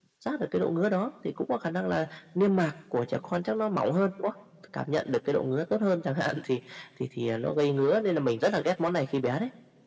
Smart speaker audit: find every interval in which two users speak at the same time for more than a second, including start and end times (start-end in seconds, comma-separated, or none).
none